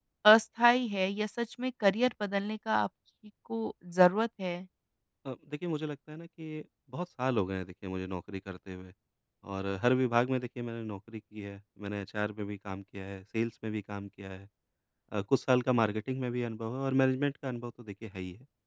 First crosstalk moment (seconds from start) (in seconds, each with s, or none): none